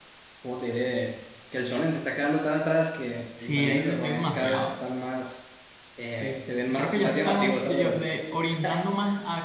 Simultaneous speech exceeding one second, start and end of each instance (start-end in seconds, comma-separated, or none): 3.4-4.7, 6.2-8.0